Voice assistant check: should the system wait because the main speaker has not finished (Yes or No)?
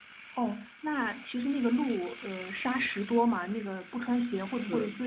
No